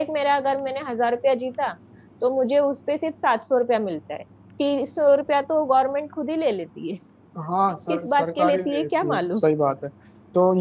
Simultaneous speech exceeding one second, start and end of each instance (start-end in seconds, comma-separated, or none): 7.9-9.4